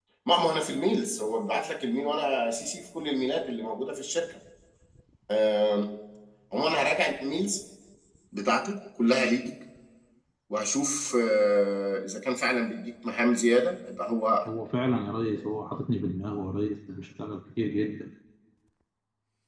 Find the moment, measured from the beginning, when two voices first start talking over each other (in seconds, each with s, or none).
none